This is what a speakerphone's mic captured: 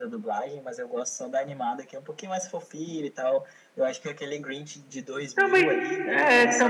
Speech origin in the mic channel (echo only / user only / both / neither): both